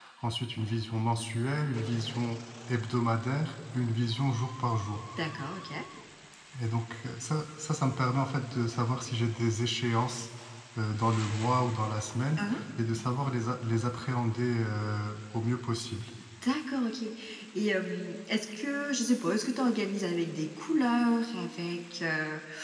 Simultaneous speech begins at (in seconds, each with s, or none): none